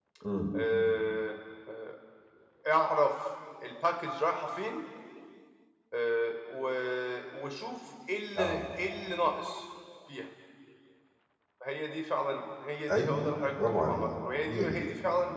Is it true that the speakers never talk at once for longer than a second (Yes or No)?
No